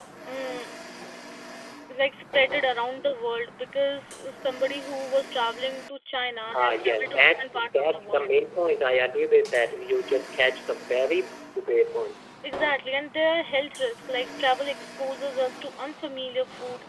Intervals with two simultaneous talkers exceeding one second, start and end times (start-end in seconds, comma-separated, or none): 6.6-8.3